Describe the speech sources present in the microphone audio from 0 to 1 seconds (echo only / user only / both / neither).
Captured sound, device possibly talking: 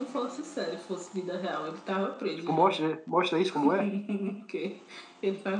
echo only